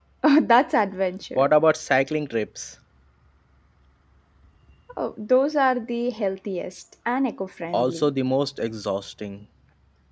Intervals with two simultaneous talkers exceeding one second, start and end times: none

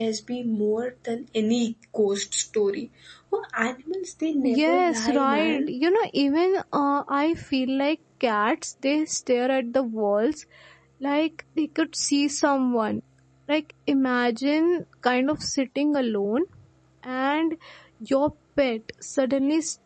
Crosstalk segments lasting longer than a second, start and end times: 4.4-5.7

